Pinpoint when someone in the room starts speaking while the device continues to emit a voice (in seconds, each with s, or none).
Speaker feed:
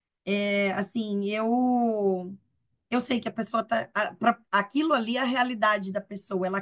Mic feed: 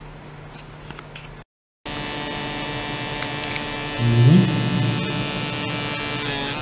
4.0 s